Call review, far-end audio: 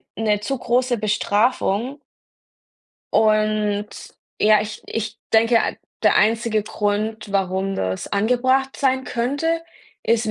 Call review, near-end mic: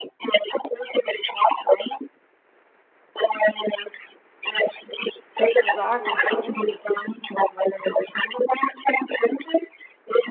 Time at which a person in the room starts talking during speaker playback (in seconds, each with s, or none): 5.4 s